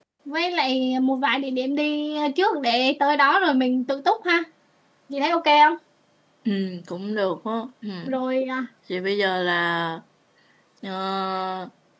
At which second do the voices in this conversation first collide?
none

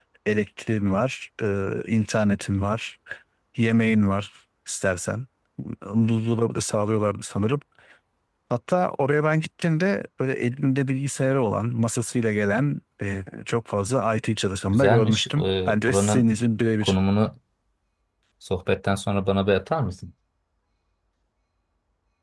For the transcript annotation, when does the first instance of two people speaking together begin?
14.6 s

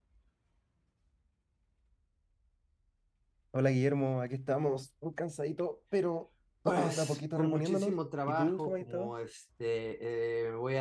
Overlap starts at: 6.7 s

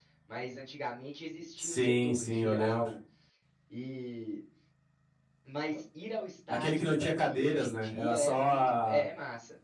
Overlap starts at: 1.6 s

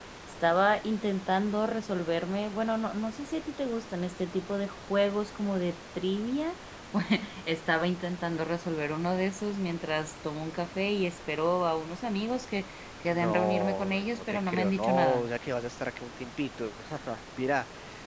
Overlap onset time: 13.1 s

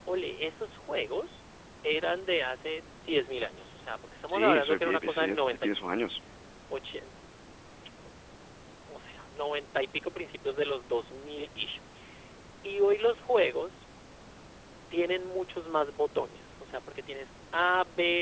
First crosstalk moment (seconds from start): 4.3 s

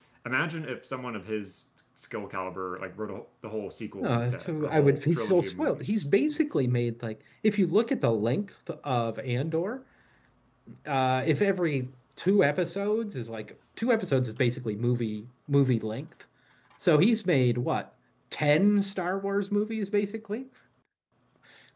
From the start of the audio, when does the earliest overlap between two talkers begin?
4.0 s

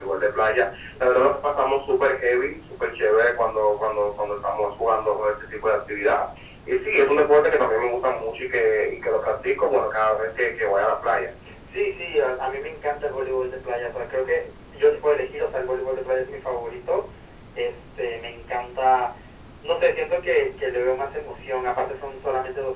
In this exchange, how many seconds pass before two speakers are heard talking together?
none

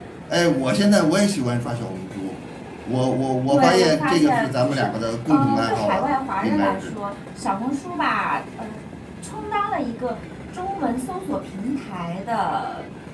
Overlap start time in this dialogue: 3.5 s

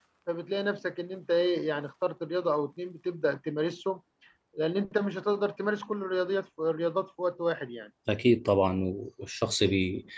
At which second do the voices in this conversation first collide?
none

